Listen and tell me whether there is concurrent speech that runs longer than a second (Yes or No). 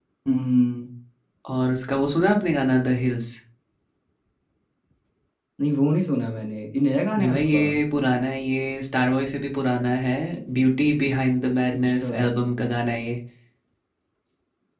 No